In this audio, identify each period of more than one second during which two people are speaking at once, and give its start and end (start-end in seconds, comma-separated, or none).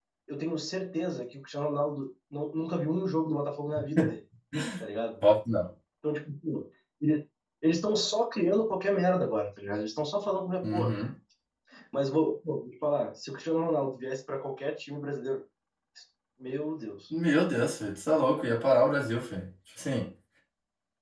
none